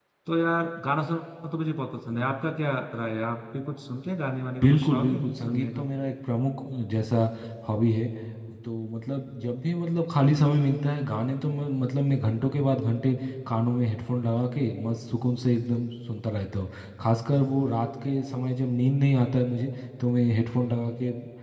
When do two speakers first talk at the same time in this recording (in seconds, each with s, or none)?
4.6 s